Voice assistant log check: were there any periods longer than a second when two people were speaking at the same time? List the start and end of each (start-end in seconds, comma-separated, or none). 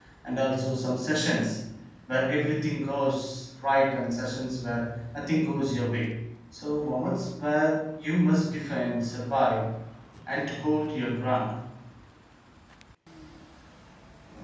none